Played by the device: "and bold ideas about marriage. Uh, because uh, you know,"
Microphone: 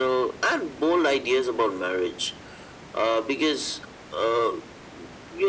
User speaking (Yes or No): No